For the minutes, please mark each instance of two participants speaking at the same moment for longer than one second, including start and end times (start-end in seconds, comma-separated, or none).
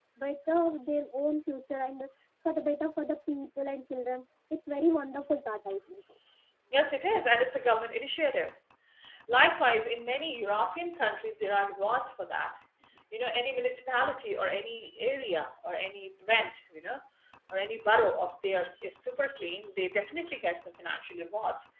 none